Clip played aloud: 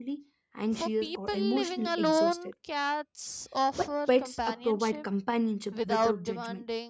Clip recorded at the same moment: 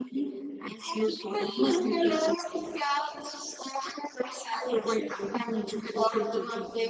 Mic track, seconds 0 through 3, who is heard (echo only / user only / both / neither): echo only